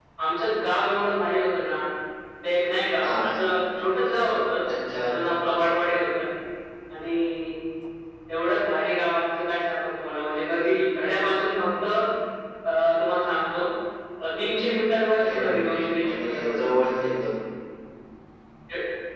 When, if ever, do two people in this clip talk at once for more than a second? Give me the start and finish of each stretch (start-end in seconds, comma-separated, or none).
15.2-16.6